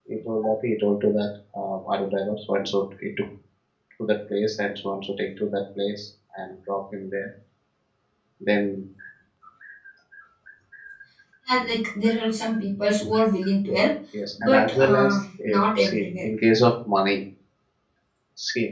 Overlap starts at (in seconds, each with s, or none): 14.4 s